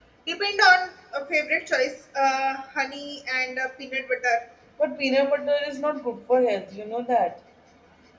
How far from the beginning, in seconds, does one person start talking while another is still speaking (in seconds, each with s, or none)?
none